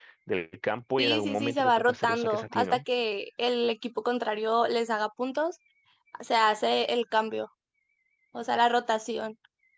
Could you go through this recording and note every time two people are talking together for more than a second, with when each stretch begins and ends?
1.0-2.8

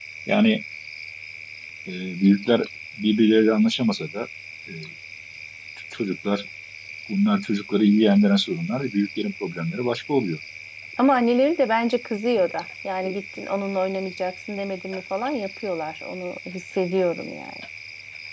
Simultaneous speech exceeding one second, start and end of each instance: none

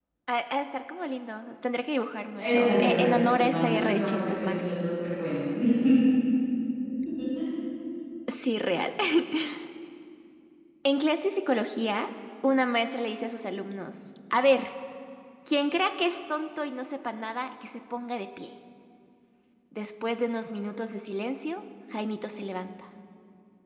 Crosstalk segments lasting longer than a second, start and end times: 2.4-4.7

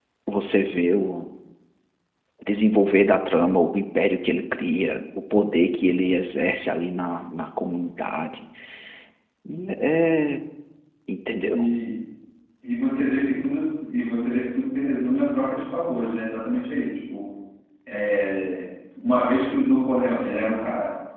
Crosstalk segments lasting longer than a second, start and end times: none

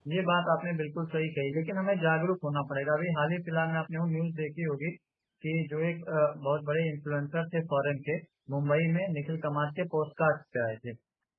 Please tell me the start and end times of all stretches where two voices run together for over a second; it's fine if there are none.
none

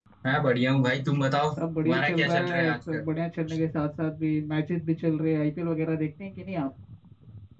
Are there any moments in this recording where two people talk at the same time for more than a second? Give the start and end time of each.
1.6-3.1

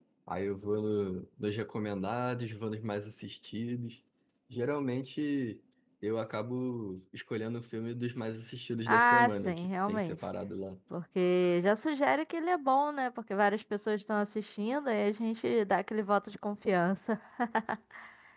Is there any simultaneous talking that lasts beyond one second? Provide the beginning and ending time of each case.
8.9-10.2

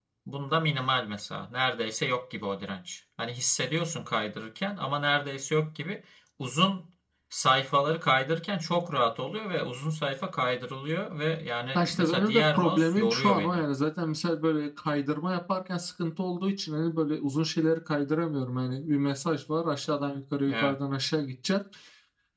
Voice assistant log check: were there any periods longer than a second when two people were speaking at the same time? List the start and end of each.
11.7-13.6

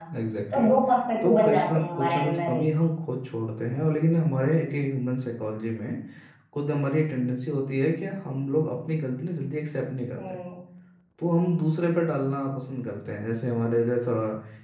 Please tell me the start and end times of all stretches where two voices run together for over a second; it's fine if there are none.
1.2-2.6

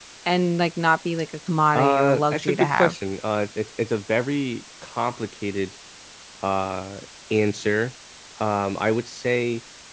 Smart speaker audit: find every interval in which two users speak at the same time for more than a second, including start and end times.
1.7-2.9

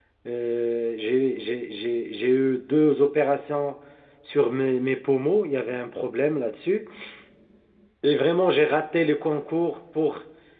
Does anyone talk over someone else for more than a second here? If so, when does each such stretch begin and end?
none

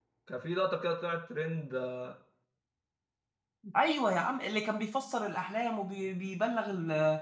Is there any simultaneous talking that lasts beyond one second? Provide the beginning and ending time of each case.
none

